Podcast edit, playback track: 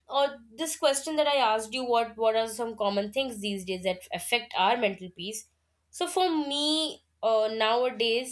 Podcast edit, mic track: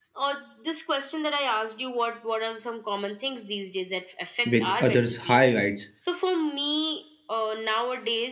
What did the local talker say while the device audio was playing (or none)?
with others' highlights.